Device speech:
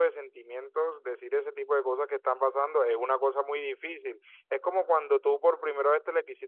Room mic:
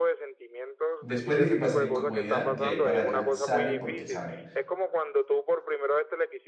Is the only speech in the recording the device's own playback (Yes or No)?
No